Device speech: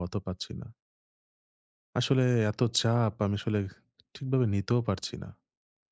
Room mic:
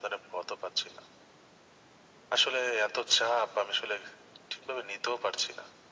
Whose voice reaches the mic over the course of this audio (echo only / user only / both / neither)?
echo only